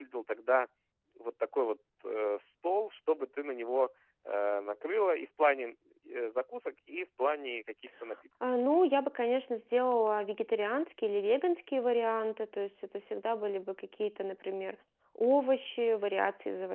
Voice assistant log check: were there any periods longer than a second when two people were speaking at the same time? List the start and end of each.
none

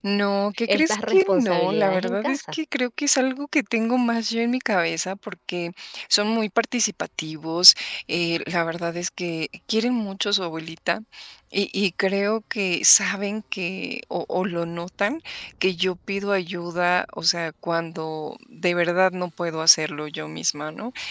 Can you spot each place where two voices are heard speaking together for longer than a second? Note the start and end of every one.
0.7-2.5

